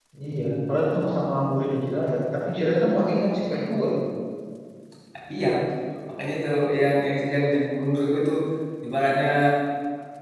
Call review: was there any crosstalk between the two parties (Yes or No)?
No